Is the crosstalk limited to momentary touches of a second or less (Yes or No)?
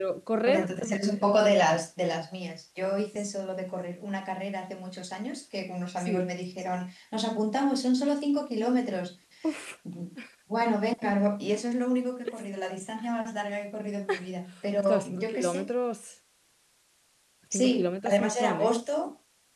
No